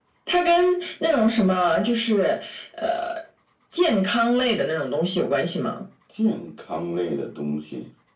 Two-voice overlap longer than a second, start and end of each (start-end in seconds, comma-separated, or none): none